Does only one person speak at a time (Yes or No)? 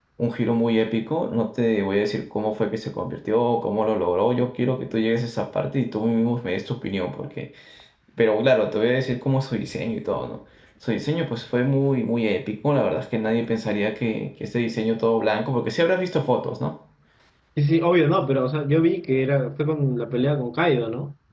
Yes